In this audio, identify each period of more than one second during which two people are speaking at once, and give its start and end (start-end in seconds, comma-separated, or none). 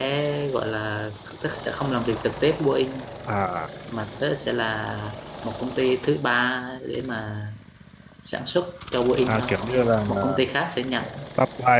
none